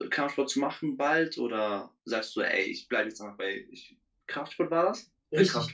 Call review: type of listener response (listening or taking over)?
taking over